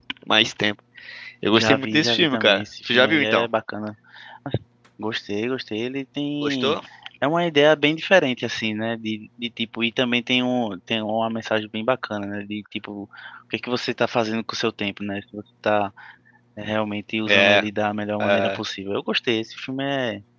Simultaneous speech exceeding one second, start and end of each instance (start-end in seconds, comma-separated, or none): 1.5-3.5